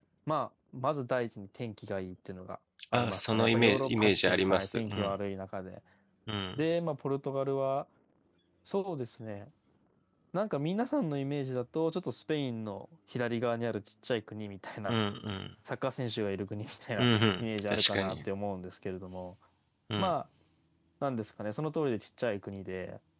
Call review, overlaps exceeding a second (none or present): present